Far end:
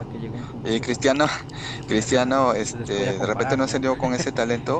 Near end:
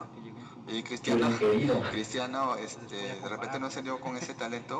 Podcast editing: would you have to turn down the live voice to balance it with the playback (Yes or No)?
Yes